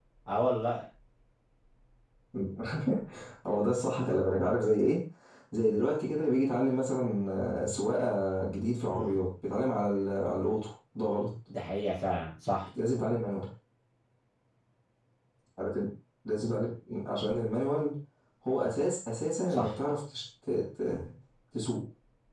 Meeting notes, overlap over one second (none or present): none